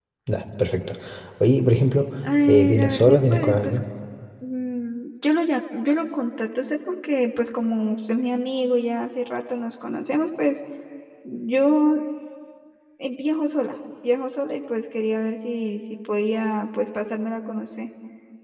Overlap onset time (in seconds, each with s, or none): 2.2 s